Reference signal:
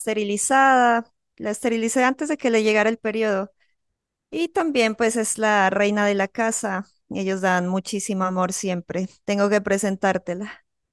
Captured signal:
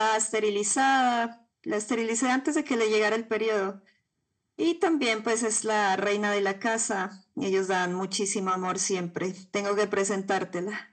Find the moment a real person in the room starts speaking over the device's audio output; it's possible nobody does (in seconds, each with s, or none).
none